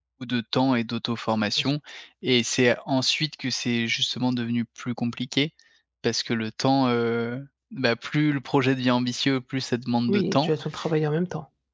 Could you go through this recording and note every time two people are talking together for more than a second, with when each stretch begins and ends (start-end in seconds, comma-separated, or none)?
none